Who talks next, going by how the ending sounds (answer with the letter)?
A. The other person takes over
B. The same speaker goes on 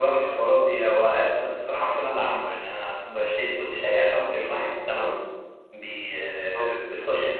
B